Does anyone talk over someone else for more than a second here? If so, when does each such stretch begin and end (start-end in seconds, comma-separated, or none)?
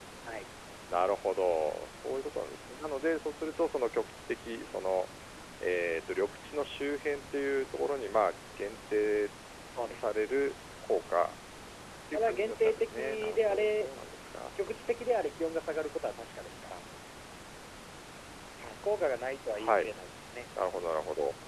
12.1-13.9